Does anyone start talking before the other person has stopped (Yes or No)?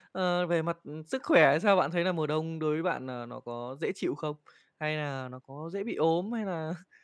No